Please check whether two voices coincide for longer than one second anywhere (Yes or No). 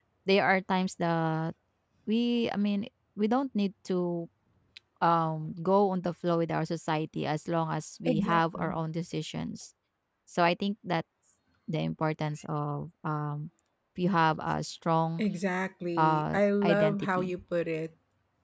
Yes